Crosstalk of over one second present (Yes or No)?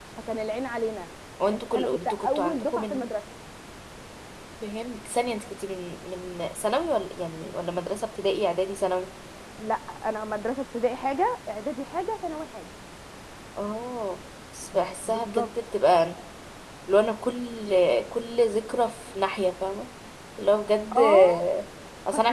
Yes